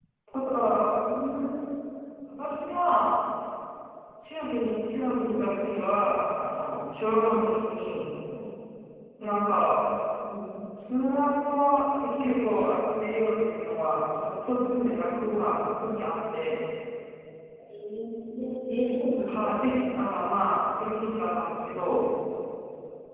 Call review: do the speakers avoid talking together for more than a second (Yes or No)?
Yes